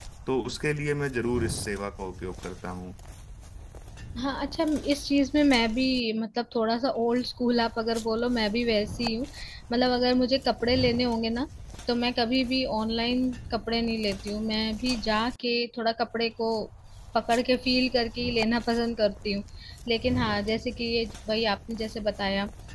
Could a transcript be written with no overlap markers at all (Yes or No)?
Yes